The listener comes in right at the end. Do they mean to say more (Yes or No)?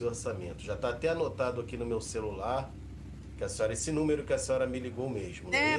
Yes